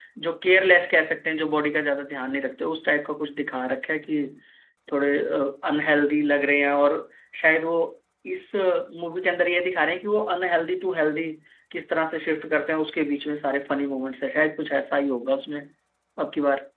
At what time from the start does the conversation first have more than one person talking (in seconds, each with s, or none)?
none